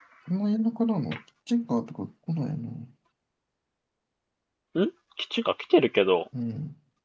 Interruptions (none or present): none